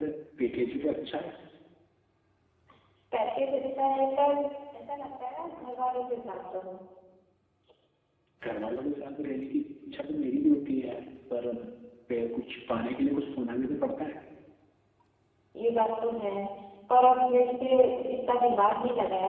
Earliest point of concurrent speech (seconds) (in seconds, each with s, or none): none